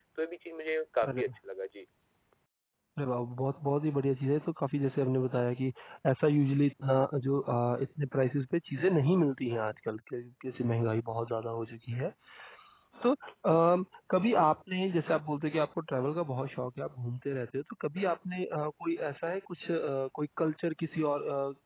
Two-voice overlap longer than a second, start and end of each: none

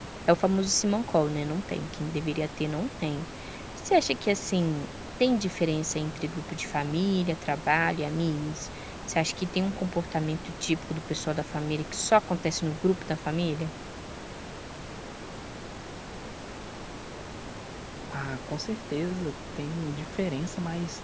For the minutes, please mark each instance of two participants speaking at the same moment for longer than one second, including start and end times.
none

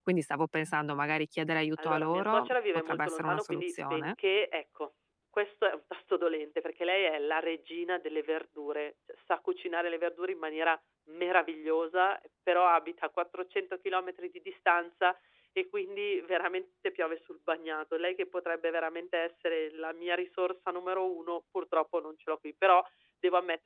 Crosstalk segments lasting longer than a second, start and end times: 1.8-4.1

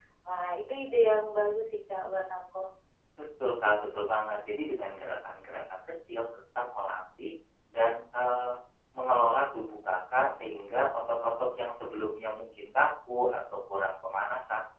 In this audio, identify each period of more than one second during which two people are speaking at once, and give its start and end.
none

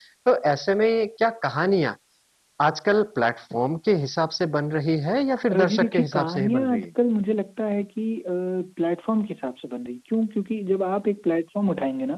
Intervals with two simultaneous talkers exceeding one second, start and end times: 5.5-6.8

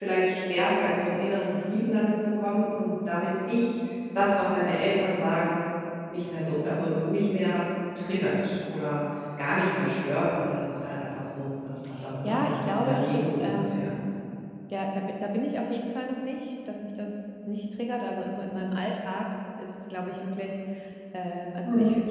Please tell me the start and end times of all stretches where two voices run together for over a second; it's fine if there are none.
12.2-13.9

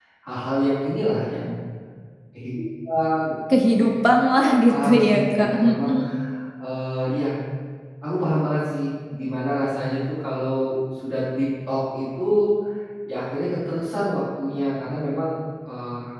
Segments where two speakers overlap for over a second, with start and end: 4.4-6.0

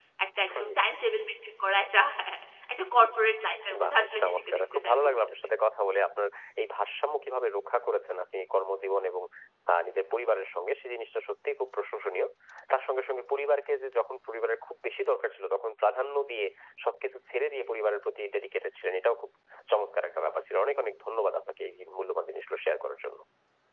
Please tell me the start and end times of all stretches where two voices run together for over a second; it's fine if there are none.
3.8-5.2

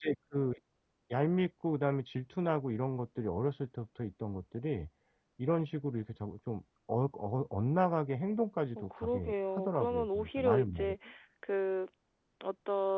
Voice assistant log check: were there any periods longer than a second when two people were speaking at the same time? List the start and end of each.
8.8-10.9

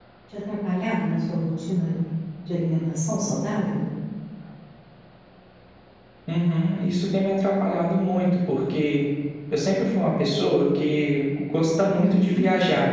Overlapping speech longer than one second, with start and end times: none

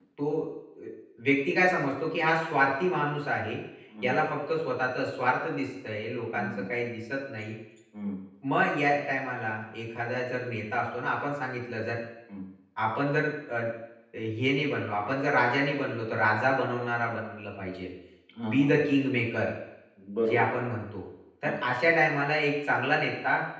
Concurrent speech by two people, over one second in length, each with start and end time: none

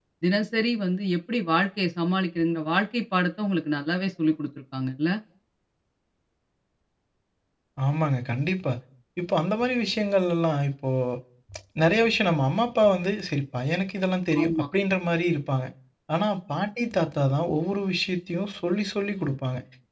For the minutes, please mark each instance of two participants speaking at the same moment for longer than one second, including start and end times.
none

